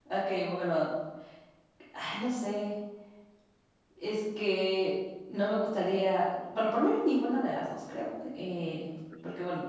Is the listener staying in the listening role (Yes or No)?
Yes